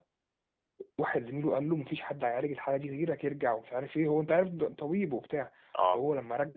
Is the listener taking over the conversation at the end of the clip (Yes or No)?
No